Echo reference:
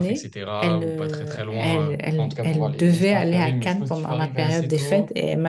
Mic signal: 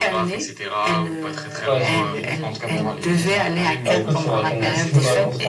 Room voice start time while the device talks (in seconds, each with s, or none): 1.6 s